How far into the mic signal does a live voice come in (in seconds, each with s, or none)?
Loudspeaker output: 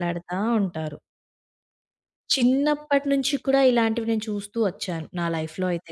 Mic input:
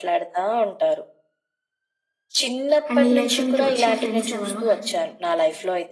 2.9 s